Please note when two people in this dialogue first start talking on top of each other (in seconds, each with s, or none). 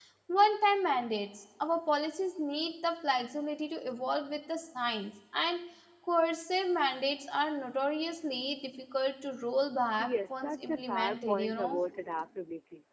10.0 s